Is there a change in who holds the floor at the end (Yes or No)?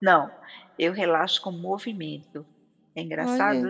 Yes